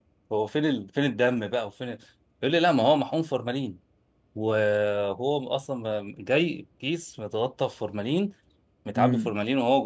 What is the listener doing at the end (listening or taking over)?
listening